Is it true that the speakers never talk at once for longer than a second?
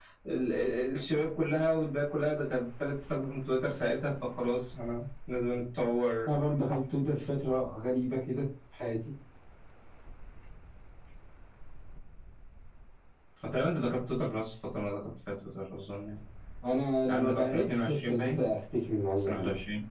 No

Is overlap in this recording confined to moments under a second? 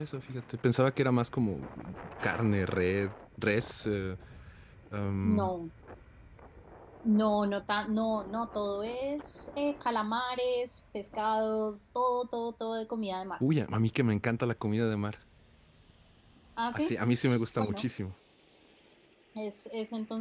Yes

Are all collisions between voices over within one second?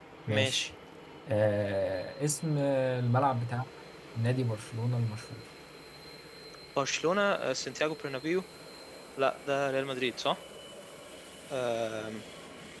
Yes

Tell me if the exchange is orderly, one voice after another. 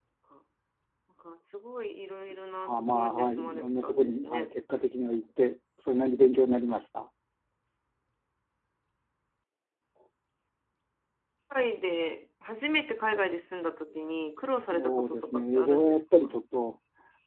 No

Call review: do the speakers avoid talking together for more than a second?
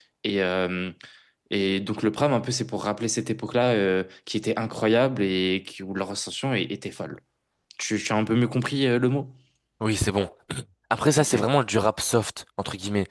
Yes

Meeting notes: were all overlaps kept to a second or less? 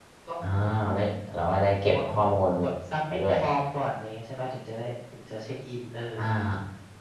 Yes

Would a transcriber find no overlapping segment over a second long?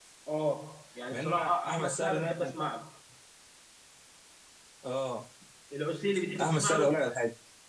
No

